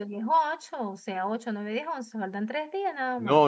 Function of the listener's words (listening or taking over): taking over